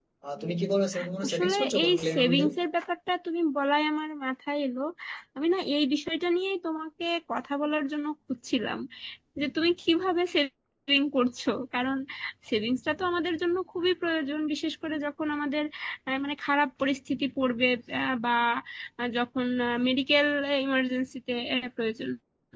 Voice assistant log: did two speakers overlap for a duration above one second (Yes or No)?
Yes